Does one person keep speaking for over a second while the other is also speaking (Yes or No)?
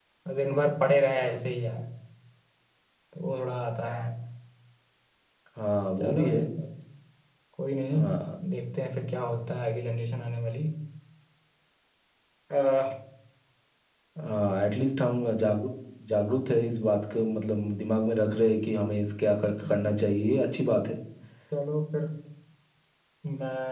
No